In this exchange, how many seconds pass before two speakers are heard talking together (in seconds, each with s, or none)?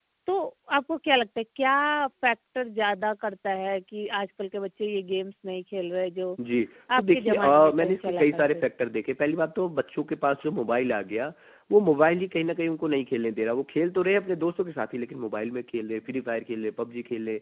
7.0 s